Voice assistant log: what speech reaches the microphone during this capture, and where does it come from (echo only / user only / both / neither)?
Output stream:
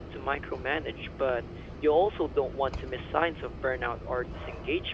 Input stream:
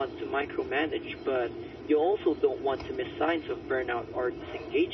echo only